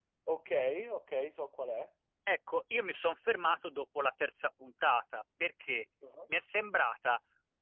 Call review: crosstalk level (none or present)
none